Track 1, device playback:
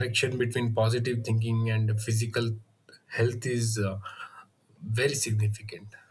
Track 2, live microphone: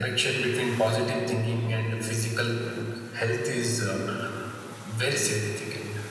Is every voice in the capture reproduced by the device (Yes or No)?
Yes